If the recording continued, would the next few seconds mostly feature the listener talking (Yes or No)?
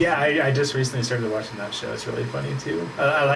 No